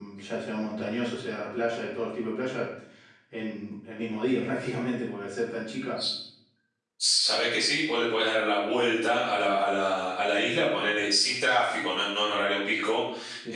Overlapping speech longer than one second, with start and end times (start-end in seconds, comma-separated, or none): none